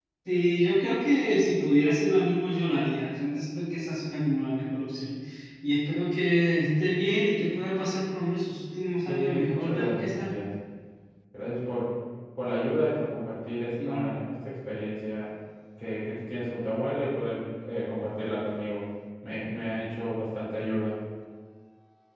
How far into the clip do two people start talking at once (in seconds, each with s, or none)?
9.1 s